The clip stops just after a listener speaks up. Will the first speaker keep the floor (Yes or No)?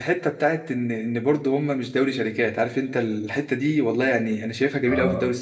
Yes